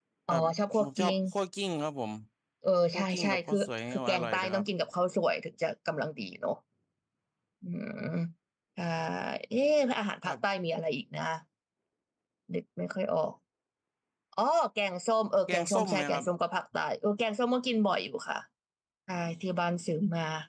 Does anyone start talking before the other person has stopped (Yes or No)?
Yes